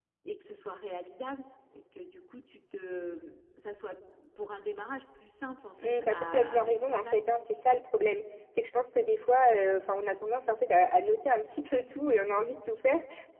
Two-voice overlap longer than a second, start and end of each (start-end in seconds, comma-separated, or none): 5.8-7.3